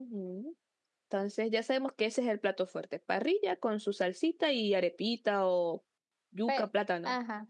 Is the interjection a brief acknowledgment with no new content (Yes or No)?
No